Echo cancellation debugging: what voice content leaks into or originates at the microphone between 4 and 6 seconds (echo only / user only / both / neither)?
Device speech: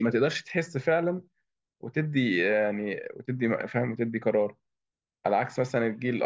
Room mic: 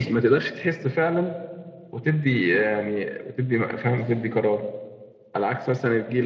both